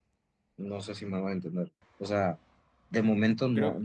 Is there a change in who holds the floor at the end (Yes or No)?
No